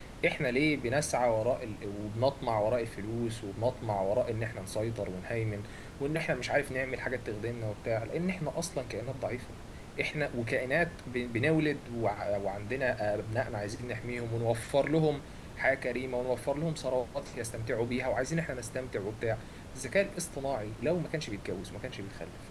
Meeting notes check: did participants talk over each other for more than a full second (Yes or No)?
No